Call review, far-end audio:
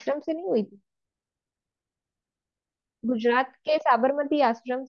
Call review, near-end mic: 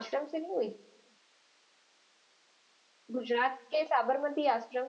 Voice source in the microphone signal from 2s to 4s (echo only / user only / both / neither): echo only